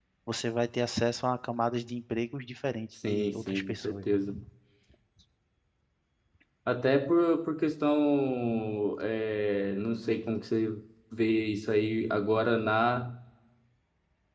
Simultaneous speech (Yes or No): Yes